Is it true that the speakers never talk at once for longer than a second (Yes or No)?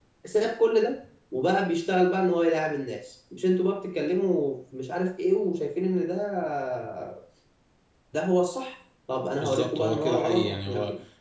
No